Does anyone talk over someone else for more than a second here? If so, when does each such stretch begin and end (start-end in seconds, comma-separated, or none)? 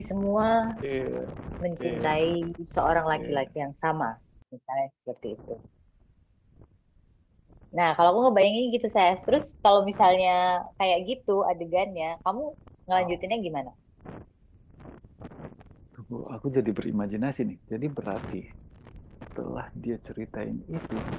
none